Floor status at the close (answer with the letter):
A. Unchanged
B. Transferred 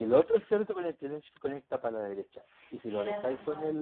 A